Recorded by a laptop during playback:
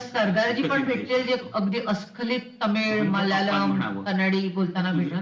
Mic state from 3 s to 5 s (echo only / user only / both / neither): echo only